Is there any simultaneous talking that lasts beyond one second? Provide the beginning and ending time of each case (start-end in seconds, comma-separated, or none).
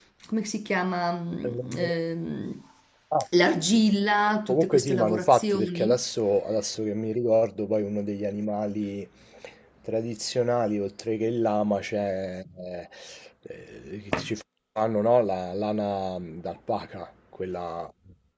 4.5-6.0